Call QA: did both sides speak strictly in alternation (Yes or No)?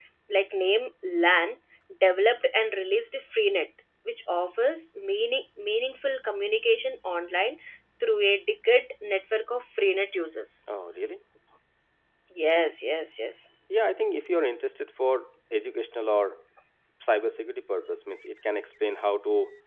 Yes